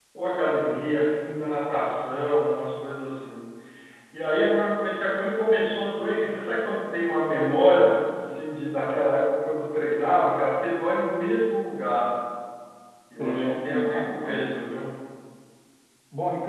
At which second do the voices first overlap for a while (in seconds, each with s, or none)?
13.2 s